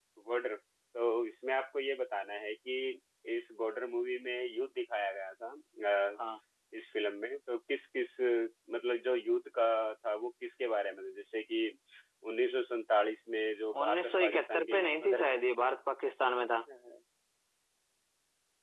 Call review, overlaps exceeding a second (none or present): present